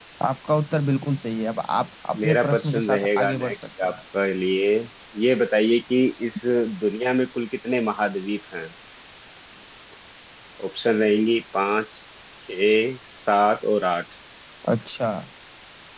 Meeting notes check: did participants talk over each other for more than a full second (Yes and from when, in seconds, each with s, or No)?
Yes, from 2.1 s